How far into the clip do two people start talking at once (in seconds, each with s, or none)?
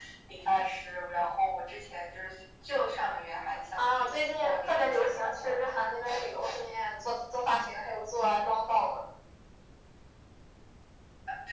3.8 s